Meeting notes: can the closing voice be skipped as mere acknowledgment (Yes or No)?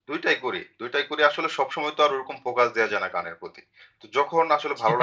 Yes